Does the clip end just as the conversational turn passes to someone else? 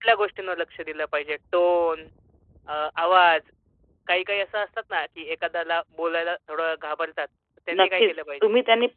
Yes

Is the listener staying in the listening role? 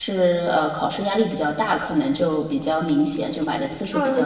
No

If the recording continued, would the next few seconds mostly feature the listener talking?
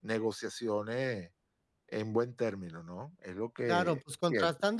Yes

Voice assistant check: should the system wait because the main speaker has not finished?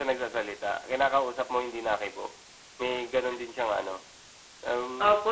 No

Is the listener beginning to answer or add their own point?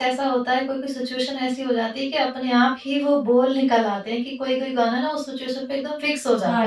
Yes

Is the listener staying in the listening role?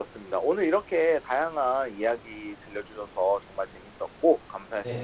No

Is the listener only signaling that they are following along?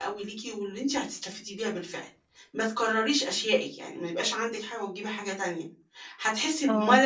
Yes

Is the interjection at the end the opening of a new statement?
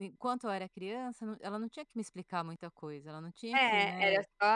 Yes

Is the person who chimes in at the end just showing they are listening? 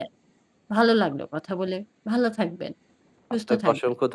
No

